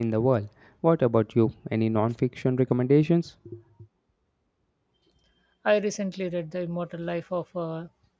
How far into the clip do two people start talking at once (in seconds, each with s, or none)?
none